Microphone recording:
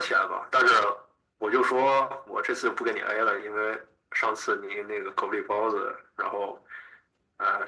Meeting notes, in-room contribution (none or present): none